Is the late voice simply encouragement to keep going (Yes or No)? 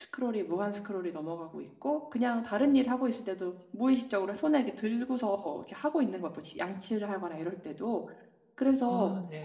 Yes